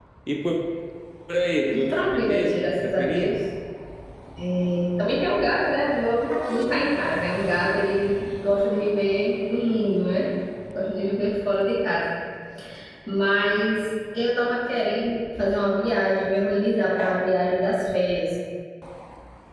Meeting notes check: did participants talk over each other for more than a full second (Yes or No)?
Yes